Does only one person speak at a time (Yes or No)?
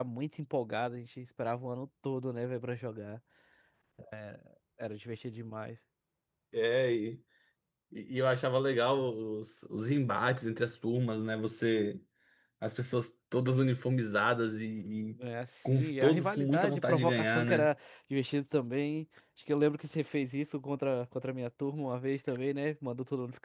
No